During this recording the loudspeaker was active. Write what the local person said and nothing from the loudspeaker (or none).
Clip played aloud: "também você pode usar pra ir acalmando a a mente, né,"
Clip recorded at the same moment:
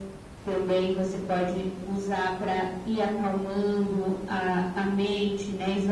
none